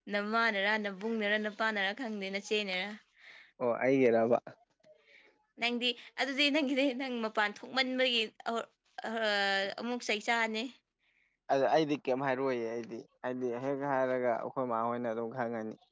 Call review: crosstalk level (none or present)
none